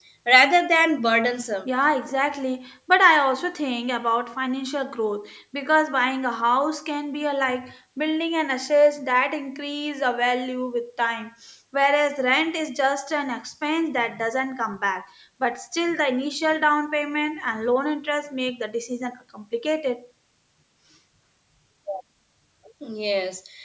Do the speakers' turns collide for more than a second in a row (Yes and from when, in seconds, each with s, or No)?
No